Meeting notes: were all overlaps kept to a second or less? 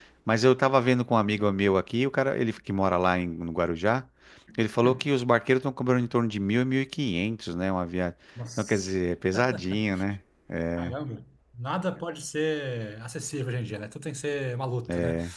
Yes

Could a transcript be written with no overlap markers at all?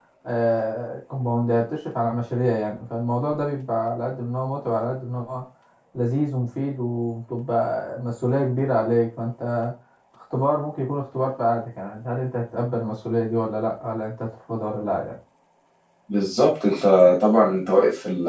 Yes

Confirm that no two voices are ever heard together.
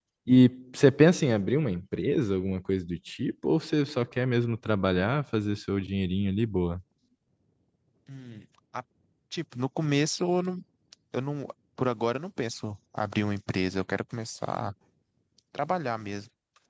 Yes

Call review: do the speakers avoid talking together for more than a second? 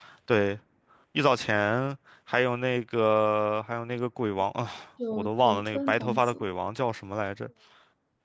No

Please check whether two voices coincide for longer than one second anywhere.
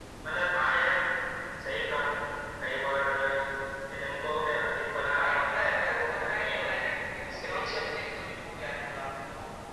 Yes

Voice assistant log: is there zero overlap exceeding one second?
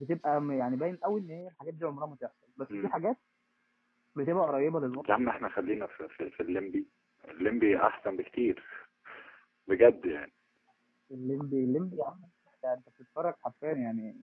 Yes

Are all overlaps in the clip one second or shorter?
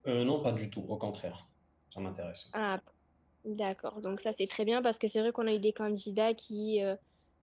Yes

